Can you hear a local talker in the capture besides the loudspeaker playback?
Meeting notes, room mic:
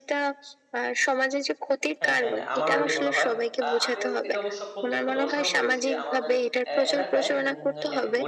Yes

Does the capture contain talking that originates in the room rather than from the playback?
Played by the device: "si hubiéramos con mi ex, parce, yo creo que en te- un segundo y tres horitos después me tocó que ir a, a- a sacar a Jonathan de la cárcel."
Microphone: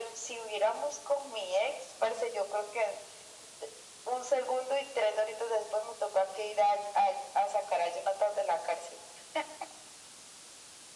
No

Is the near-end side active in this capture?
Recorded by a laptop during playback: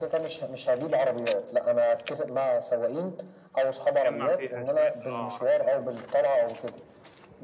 Yes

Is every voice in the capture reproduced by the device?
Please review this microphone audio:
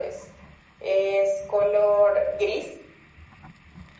Yes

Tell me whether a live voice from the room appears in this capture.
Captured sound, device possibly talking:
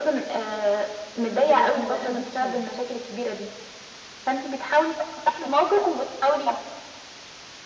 Yes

